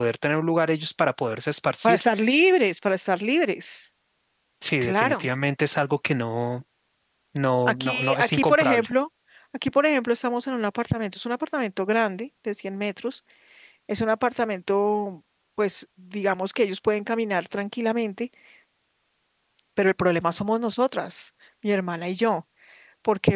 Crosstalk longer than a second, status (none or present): present